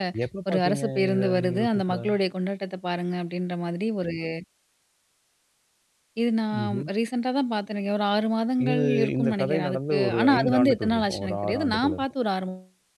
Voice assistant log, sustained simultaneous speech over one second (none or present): present